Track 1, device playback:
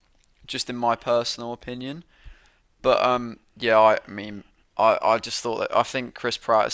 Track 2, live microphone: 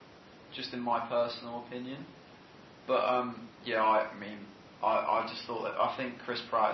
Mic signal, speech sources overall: echo only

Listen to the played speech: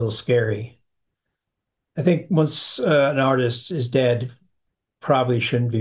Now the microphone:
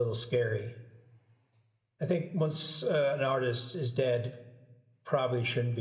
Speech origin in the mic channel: echo only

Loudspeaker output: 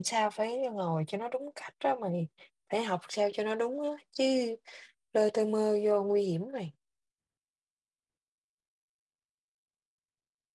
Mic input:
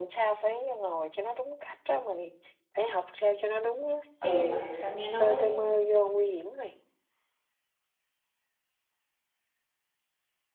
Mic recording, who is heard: both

